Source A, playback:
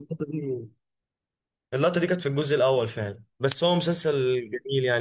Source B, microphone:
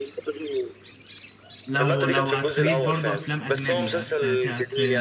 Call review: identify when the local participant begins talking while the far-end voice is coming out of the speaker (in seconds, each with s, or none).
1.7 s